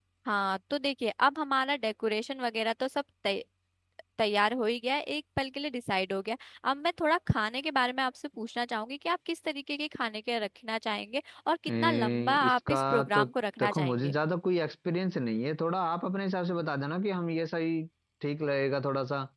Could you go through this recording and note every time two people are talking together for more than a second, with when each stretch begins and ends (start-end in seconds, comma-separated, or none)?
11.8-13.2